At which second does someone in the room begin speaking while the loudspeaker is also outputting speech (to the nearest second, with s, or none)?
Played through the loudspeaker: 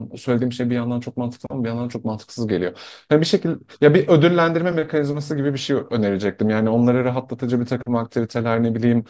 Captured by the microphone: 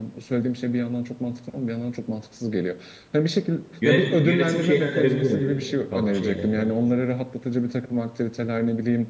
4 s